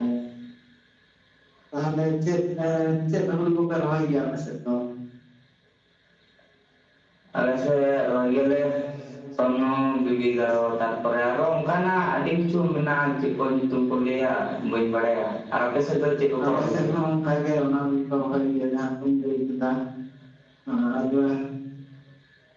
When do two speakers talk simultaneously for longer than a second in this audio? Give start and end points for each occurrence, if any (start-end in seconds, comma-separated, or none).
none